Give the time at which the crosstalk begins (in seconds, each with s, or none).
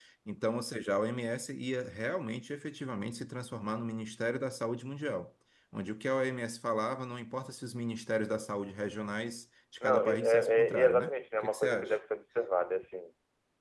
9.8 s